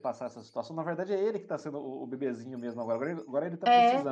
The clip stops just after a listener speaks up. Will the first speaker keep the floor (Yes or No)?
Yes